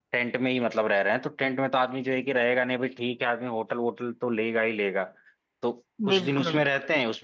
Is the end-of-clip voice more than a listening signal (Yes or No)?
No